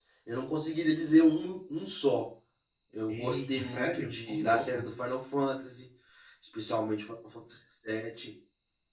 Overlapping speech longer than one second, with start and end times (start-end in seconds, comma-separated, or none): 3.1-4.8